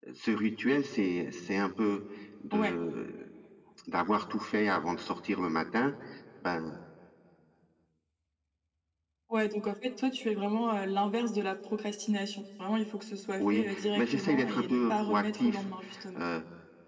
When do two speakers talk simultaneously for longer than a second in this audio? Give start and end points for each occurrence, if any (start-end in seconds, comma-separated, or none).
13.4-15.6